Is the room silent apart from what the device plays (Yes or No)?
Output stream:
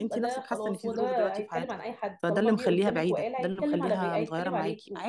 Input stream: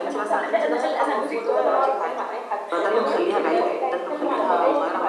No